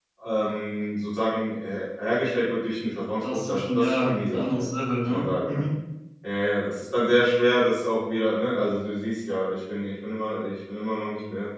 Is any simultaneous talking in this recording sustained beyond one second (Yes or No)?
Yes